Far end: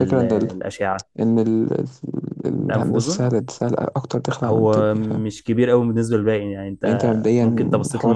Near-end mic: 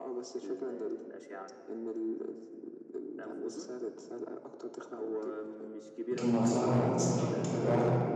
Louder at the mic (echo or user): user